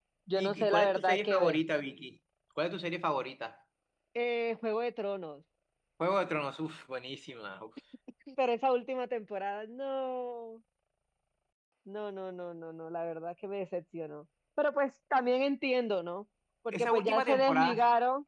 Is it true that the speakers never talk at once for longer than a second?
No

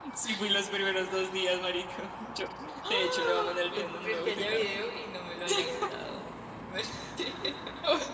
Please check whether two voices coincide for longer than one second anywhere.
Yes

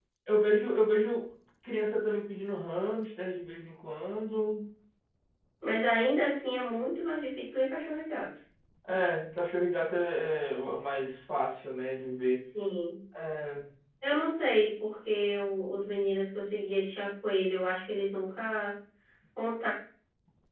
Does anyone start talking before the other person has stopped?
No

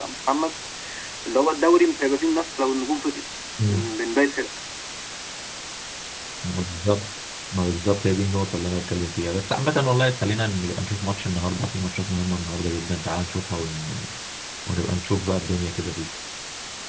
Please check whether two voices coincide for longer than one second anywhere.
No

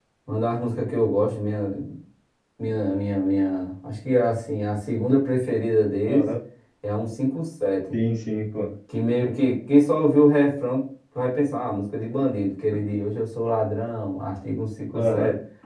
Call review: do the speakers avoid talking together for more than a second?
Yes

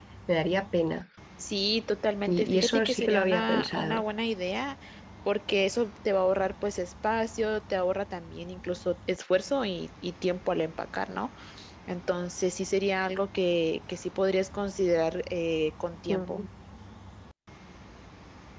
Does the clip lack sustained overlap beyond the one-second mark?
No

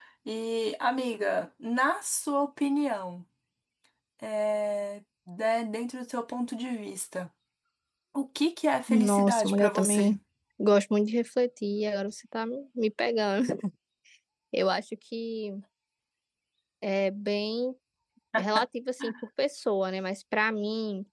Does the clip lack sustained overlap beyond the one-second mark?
No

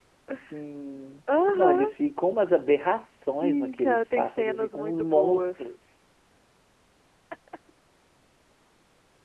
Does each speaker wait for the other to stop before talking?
No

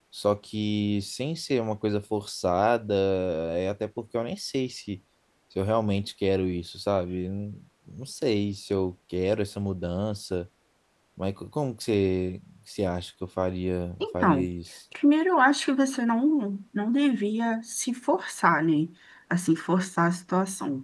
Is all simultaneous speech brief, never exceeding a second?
Yes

